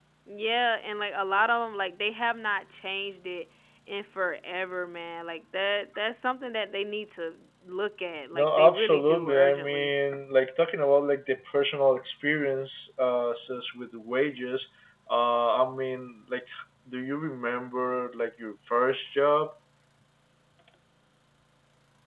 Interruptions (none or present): present